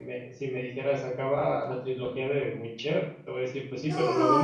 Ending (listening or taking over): taking over